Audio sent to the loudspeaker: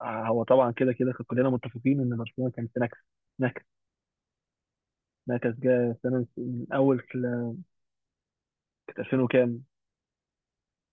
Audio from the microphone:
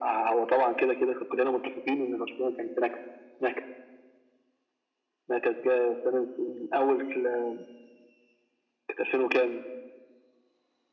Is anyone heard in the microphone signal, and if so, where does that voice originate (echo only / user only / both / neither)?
echo only